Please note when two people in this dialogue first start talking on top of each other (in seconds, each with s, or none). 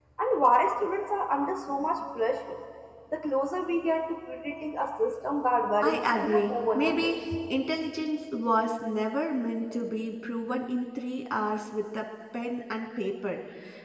5.8 s